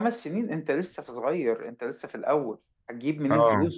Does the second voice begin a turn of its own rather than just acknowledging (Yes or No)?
No